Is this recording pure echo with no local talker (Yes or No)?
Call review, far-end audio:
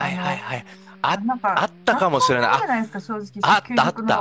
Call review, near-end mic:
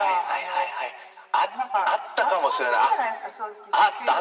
Yes